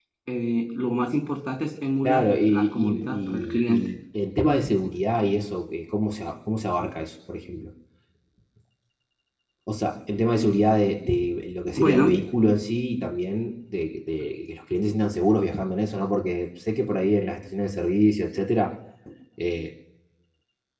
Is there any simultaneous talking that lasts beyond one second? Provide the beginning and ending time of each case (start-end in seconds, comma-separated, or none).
2.0-3.9